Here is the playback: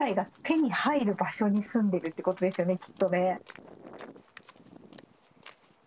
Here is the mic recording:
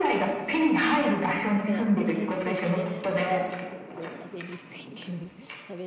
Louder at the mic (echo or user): echo